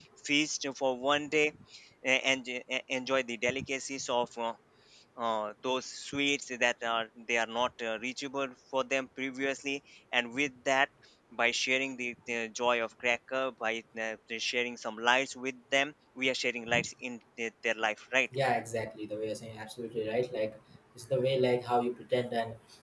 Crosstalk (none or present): none